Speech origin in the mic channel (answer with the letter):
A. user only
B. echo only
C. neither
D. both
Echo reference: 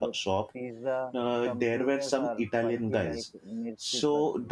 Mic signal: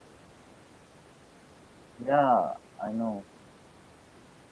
A